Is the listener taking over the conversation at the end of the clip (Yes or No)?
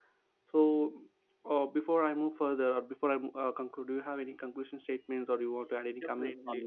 Yes